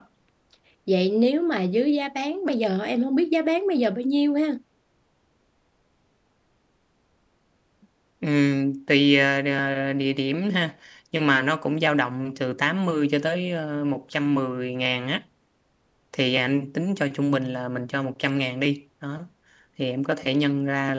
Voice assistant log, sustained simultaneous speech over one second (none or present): none